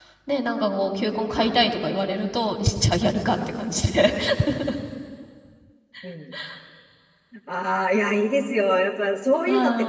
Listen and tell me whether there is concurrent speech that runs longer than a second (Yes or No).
No